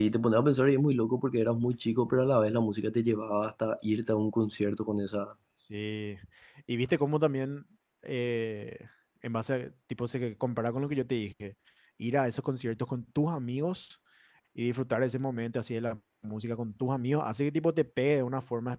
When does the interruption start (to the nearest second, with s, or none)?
none